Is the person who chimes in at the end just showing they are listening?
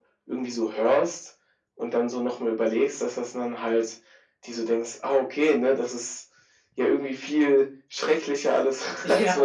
No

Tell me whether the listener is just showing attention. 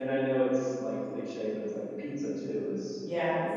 Yes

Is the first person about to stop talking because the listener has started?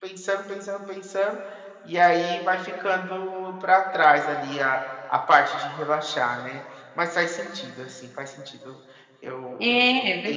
Yes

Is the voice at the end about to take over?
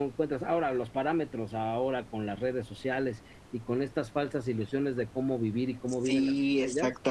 Yes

